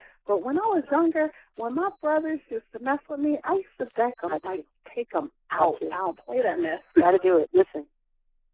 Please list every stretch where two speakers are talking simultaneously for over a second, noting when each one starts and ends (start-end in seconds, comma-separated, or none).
none